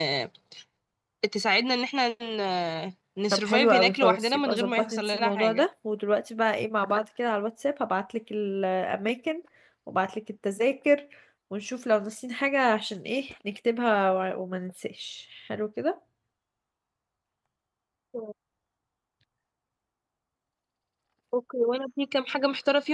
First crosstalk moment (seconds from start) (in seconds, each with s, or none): 3.3 s